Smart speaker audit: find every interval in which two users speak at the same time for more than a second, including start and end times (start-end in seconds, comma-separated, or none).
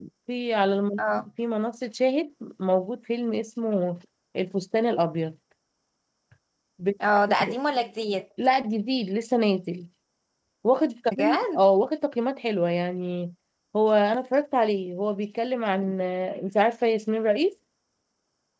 none